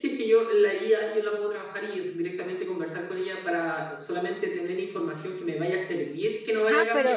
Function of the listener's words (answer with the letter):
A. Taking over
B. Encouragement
A